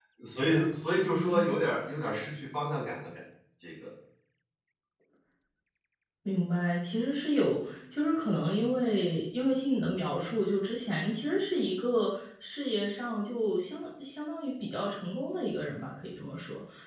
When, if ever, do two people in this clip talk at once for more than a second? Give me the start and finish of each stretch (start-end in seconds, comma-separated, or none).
none